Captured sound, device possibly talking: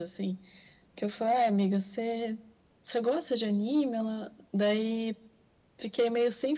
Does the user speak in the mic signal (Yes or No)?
No